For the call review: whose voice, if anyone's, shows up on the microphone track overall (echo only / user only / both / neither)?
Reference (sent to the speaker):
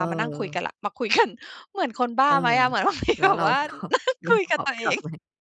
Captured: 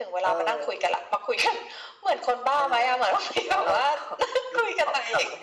echo only